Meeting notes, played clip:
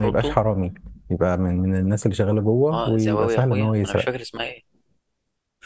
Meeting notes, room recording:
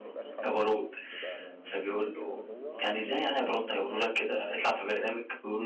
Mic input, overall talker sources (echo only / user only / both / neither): both